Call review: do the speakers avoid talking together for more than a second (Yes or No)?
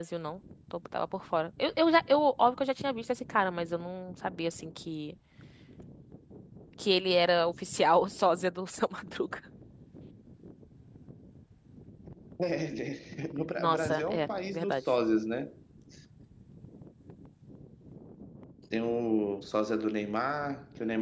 No